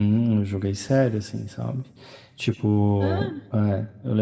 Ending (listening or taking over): listening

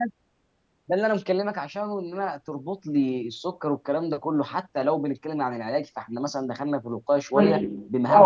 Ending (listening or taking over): taking over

